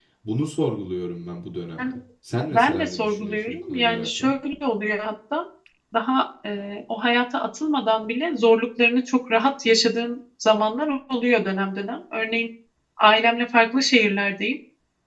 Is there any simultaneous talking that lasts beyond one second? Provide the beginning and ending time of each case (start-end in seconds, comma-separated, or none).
2.5-4.3